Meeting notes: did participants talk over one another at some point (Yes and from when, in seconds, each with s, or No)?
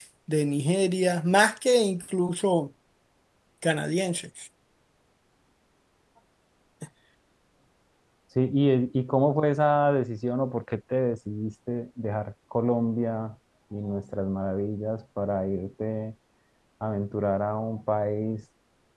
No